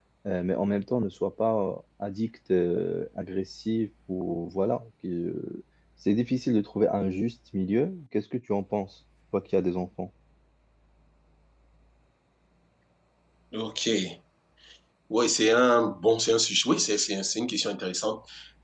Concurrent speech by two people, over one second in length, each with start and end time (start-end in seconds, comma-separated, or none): none